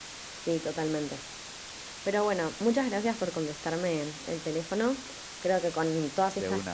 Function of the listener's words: listening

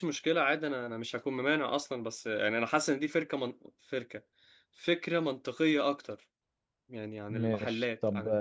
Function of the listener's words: taking over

